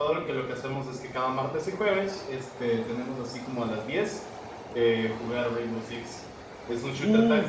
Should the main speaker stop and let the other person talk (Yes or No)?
Yes